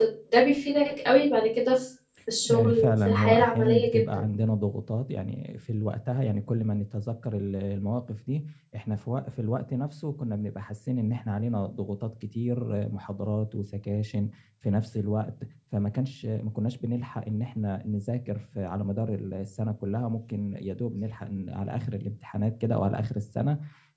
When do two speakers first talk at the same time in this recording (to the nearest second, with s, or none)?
2 s